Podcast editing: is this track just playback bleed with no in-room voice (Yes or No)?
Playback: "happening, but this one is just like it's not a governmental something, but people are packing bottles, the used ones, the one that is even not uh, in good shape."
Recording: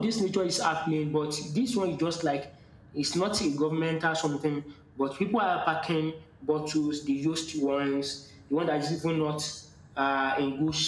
Yes